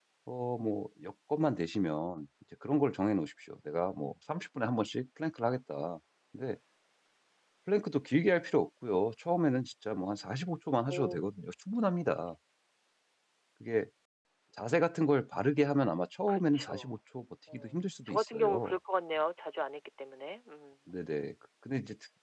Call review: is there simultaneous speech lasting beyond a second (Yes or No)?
Yes